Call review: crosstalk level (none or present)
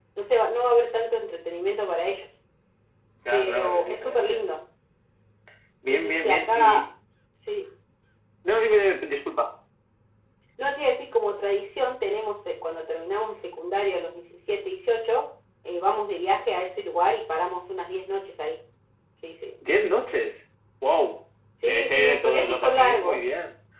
present